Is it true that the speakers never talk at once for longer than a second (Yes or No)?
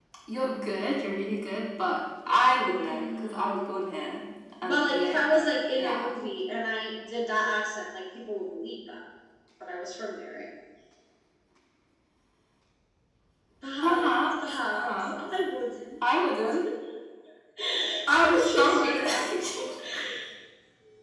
No